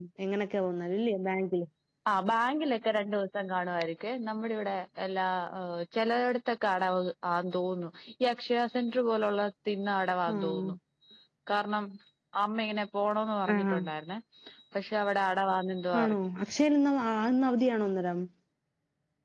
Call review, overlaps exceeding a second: none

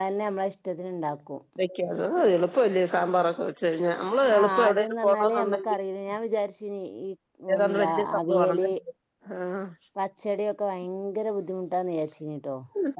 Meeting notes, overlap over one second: present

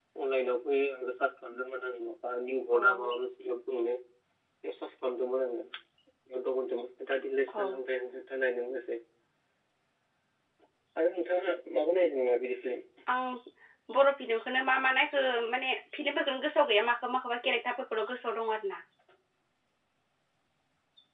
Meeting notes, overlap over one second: none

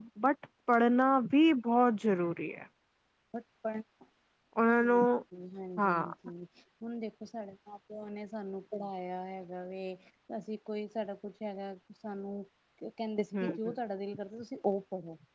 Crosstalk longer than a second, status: none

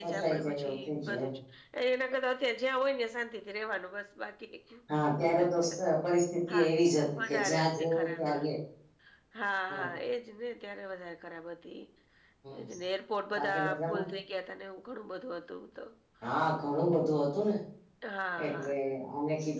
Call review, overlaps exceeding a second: present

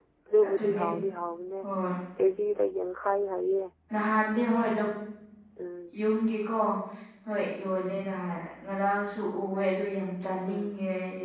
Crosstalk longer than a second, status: none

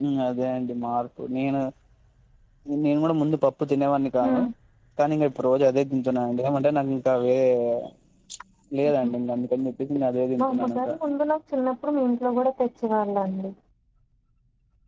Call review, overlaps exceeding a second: none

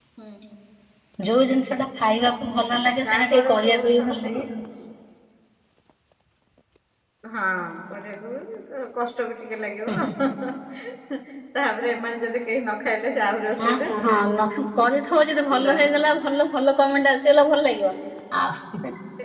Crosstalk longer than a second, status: present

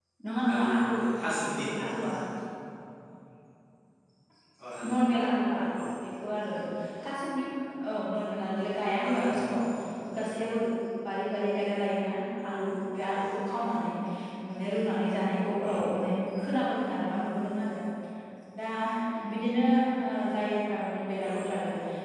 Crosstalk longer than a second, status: present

